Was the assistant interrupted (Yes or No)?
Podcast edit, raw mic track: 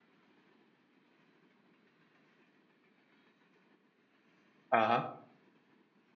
Yes